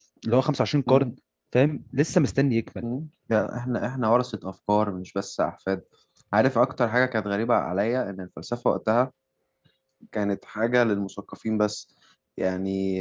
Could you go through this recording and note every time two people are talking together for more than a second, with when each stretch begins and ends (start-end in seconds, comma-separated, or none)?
none